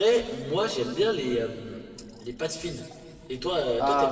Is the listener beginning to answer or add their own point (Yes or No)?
Yes